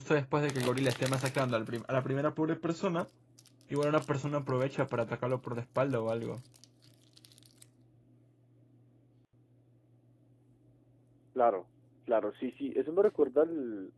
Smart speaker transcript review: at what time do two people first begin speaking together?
none

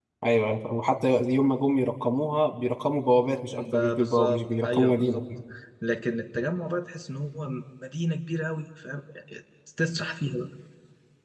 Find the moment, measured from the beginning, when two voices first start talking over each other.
3.5 s

